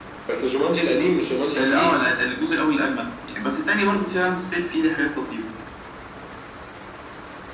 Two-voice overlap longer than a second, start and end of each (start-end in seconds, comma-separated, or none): none